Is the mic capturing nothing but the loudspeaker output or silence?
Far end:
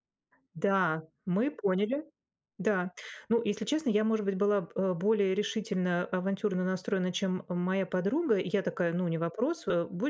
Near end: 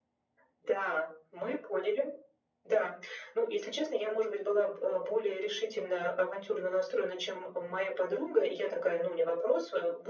Yes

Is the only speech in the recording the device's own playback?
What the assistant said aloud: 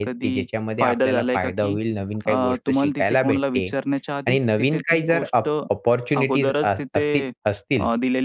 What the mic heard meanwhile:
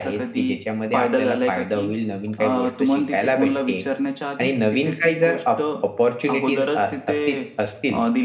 Yes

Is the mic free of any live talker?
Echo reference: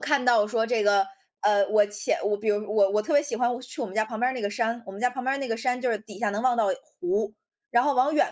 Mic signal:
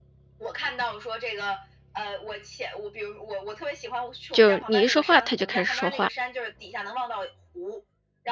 No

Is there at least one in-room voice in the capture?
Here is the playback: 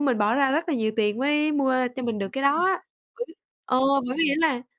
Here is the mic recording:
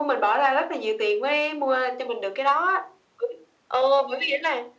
No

